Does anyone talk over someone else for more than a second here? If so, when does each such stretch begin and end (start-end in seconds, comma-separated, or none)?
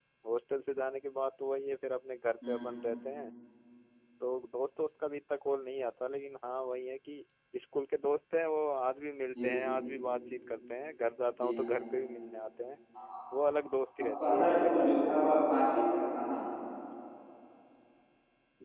14.3-15.7